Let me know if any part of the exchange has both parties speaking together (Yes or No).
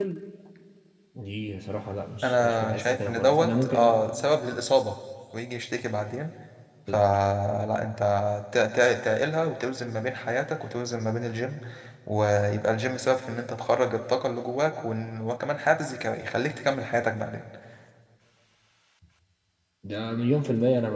Yes